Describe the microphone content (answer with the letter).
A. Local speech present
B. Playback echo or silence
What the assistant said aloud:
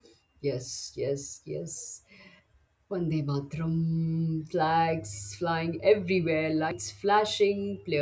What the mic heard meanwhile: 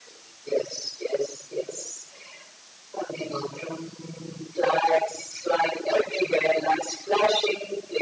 B